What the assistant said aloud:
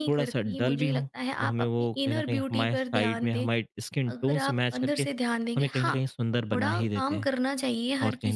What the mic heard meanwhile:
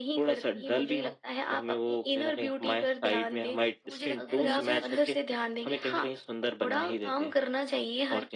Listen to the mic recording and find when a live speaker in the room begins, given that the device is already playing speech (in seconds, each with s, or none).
3.8 s